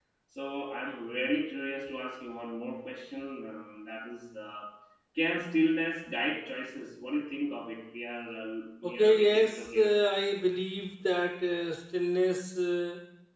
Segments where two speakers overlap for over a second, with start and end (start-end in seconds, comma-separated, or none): 8.8-10.4